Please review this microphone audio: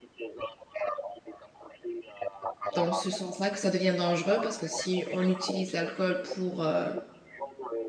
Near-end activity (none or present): present